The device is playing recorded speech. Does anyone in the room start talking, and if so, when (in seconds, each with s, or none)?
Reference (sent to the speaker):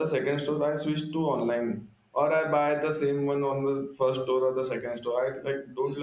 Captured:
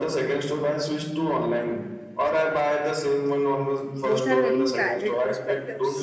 4.0 s